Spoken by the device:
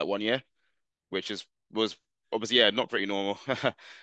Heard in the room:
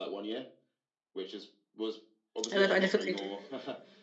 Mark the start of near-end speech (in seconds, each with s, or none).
2.5 s